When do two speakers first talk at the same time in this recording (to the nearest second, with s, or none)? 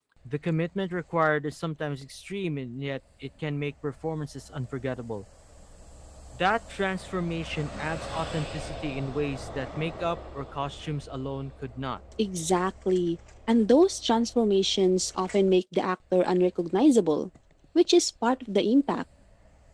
none